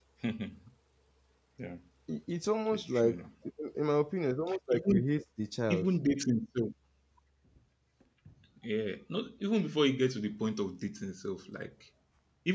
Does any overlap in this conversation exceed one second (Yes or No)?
No